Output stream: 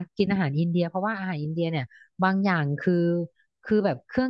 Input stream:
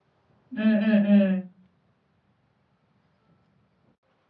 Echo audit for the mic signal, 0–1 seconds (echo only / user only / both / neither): user only